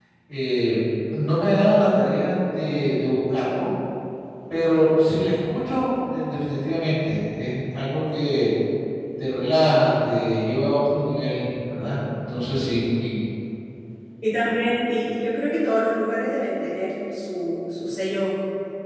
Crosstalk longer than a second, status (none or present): none